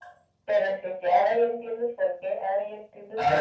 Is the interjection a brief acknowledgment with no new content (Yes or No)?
No